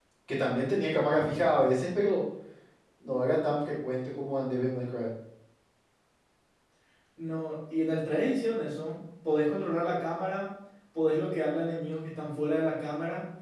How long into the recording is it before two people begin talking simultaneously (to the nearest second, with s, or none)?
none